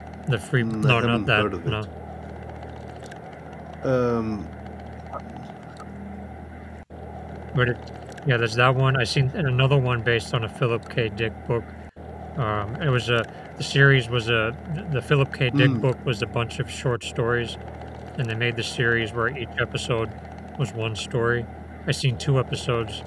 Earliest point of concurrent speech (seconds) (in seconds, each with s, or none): 0.6 s